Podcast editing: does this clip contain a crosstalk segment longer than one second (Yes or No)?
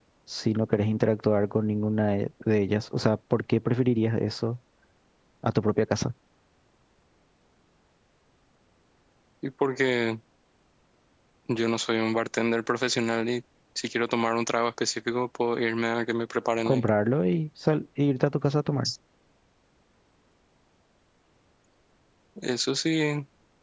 No